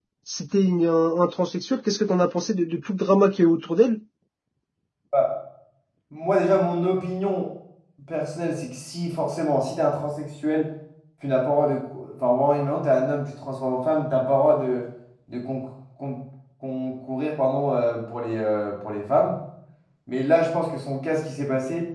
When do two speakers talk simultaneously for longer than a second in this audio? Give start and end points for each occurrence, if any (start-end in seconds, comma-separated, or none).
none